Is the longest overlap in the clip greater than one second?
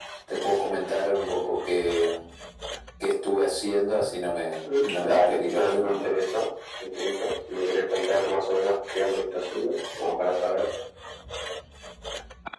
Yes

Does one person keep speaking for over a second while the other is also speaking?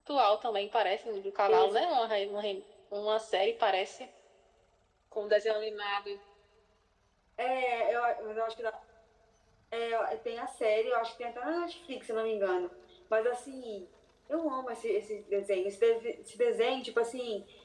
No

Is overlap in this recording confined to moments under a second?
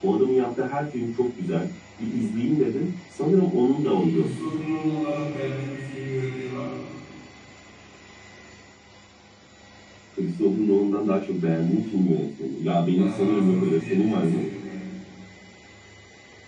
No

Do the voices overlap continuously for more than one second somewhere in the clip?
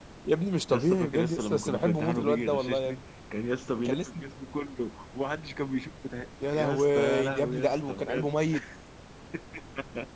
Yes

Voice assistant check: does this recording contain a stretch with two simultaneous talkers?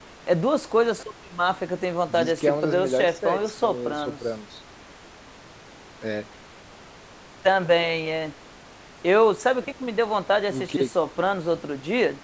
Yes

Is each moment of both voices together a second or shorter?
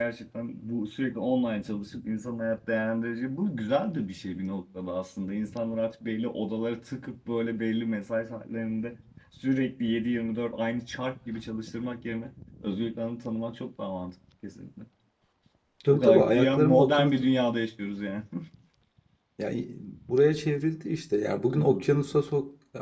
No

